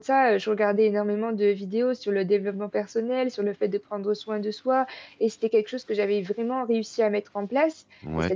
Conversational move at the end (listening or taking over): listening